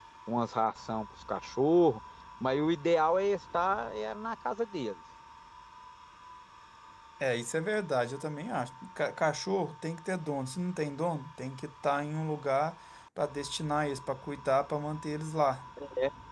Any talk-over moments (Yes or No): No